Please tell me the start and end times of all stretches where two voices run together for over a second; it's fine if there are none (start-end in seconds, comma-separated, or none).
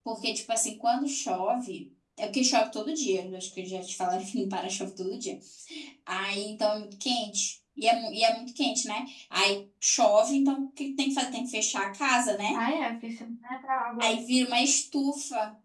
none